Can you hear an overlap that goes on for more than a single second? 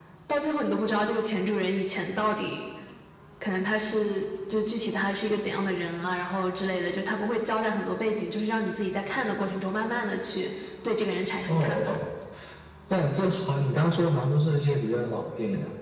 No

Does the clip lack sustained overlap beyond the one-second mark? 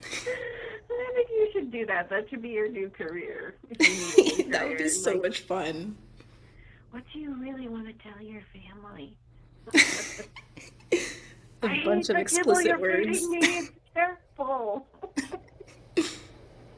No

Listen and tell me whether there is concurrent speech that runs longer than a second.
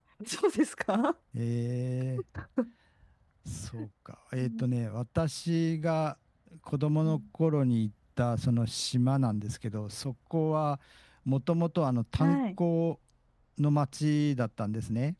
No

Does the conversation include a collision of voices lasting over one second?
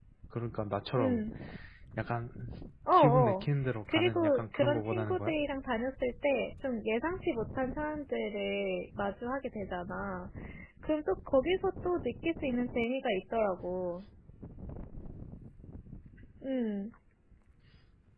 Yes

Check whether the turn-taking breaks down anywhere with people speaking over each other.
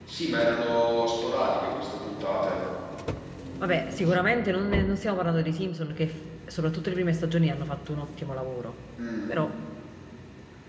No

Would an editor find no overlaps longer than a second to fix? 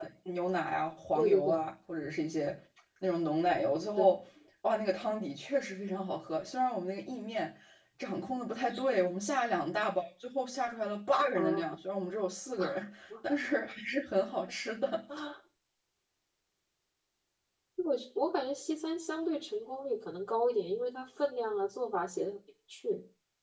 Yes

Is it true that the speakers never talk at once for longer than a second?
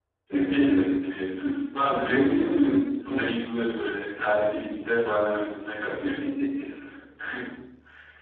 No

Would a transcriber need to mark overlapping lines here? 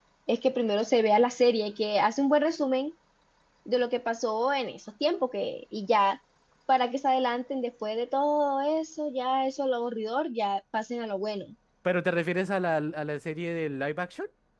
No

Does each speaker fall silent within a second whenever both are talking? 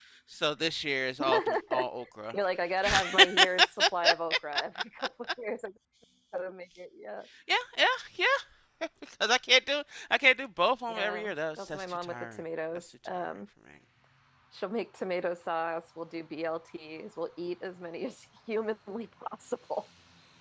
No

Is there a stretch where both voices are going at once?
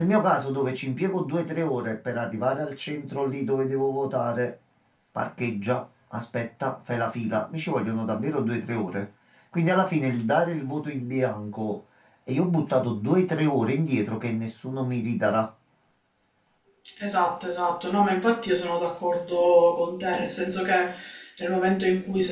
No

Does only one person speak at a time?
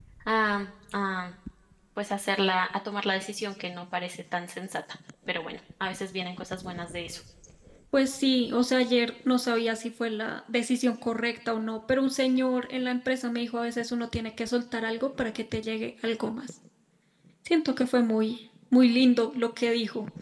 Yes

